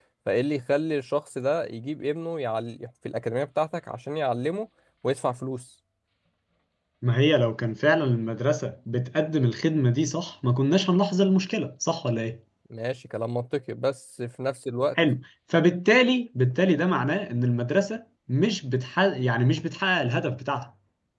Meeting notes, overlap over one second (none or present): none